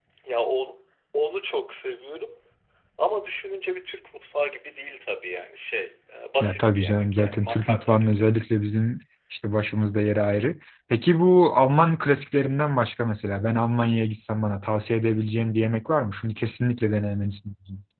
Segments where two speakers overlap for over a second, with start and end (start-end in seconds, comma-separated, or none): 6.4-8.2